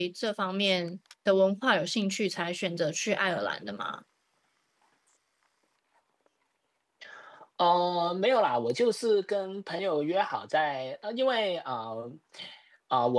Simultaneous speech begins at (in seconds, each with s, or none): none